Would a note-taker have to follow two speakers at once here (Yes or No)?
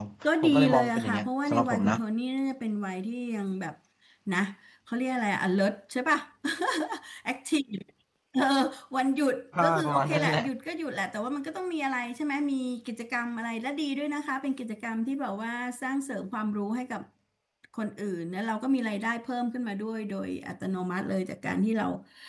Yes